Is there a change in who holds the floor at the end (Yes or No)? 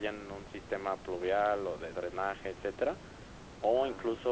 No